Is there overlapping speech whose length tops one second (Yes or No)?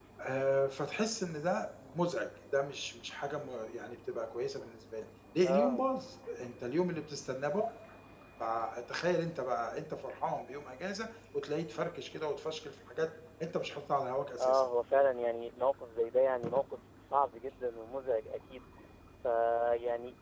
No